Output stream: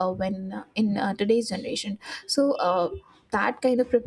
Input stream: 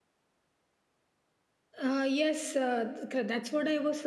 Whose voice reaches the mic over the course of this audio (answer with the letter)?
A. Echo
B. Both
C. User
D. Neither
C